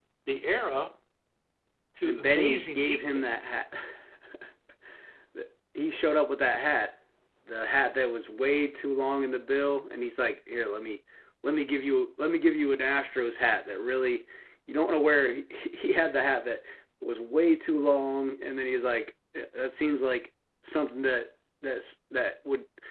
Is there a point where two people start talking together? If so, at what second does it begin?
2 s

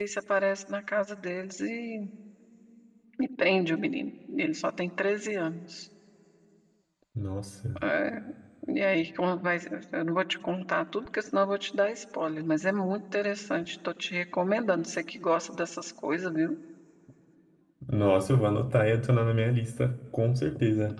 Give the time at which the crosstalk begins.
none

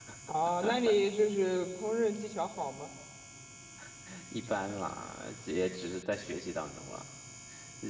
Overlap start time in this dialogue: none

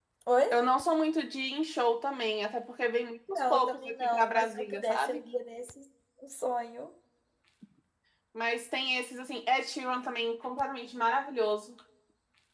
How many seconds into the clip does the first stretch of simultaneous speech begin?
3 s

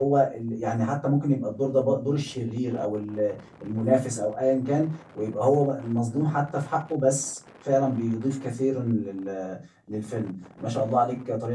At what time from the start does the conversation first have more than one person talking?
none

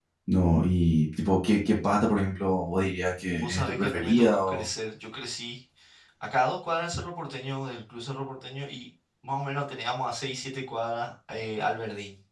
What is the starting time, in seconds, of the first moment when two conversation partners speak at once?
3 s

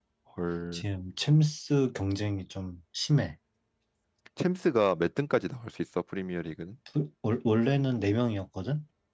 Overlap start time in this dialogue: none

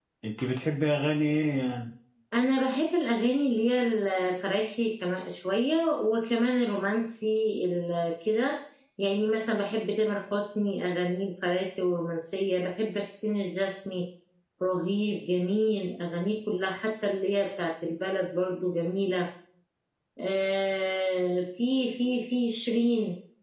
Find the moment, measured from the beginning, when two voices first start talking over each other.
none

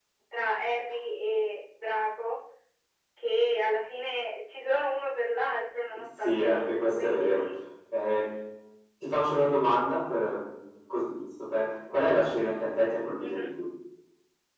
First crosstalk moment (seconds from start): 6 s

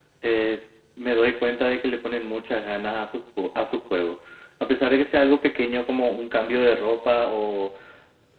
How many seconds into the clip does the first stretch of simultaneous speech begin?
none

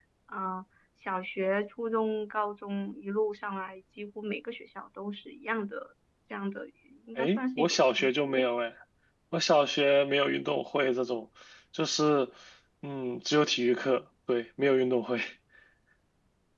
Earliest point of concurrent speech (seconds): 7 s

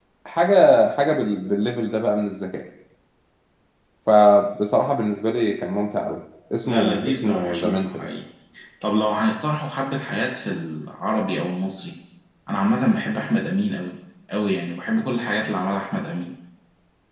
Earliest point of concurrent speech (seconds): 7 s

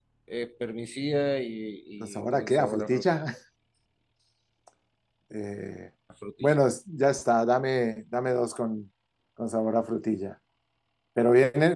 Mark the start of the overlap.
2 s

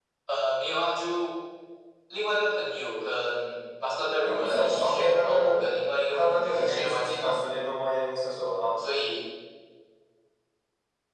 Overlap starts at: 4 s

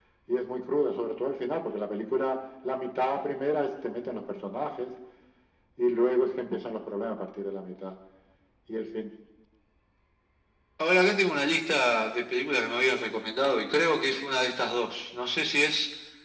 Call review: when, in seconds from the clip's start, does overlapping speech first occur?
none

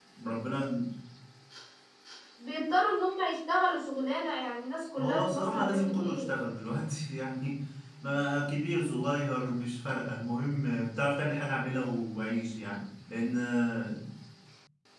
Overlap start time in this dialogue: 5 s

